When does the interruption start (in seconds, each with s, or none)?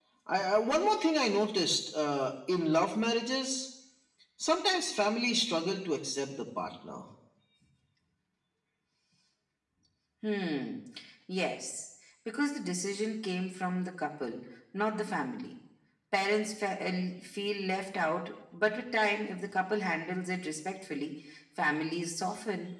none